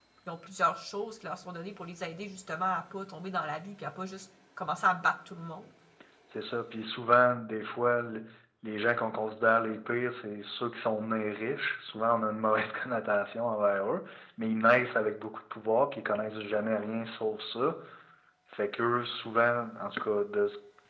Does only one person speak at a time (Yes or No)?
Yes